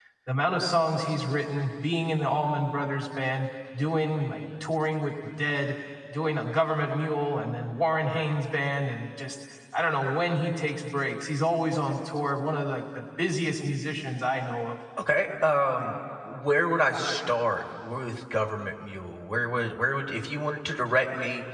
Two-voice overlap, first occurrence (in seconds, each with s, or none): none